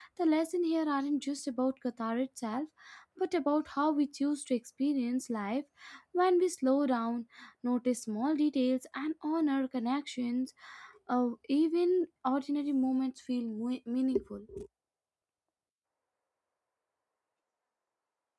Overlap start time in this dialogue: none

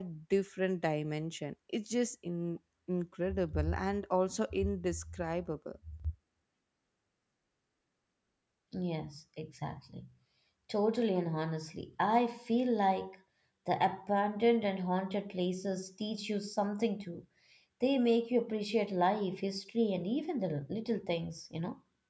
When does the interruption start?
none

